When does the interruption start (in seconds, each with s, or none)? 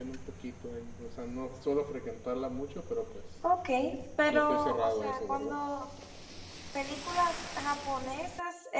4.3 s